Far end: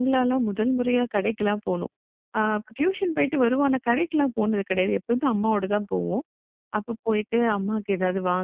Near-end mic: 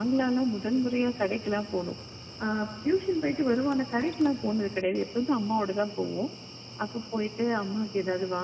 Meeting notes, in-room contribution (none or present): none